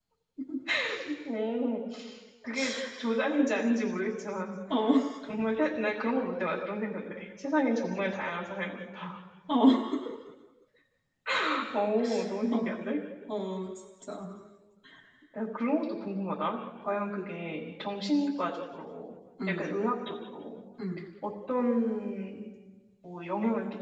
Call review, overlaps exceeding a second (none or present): none